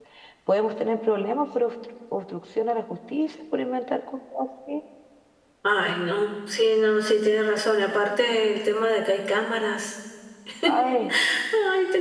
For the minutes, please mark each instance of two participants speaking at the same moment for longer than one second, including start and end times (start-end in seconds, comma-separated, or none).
none